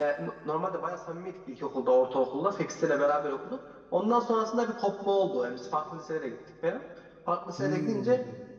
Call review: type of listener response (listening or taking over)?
listening